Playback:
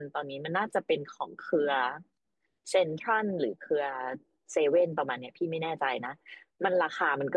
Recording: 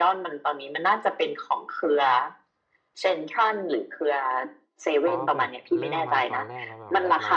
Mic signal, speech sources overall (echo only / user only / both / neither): both